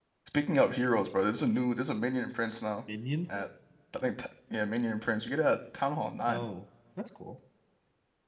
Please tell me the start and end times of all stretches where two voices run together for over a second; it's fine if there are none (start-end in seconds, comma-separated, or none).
none